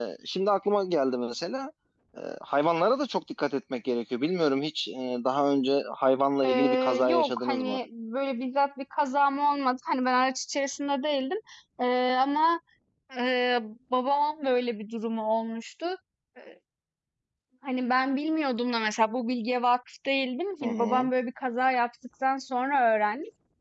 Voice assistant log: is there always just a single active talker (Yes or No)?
No